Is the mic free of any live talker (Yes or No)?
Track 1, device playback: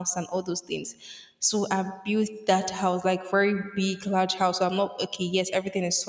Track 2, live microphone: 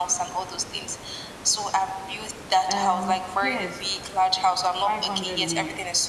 No